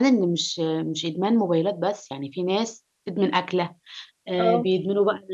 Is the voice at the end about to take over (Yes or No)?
No